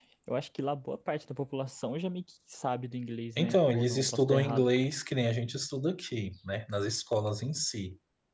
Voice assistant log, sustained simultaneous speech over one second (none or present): present